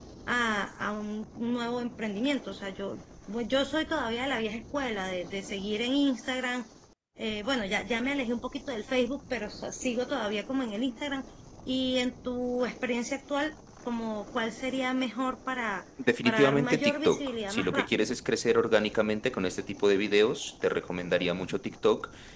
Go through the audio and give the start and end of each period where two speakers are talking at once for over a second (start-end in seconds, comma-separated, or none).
16.2-18.1